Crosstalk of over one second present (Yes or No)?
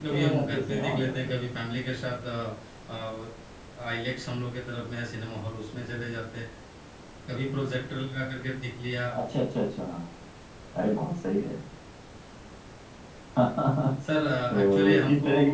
Yes